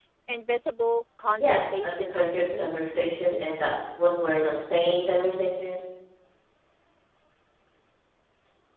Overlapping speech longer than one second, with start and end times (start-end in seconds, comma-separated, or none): 1.4-2.8